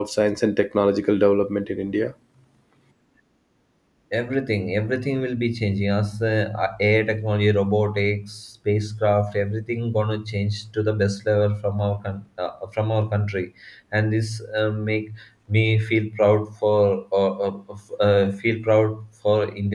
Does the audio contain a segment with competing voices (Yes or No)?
No